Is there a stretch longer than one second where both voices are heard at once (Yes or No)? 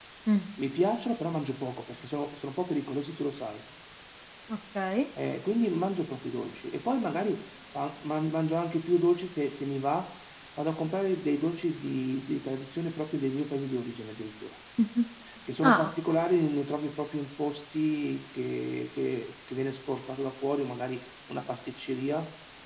No